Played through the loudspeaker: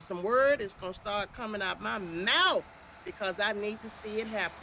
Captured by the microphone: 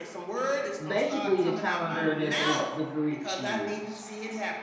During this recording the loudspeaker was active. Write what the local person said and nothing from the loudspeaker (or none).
Basically, the calendar that they the Greeks used,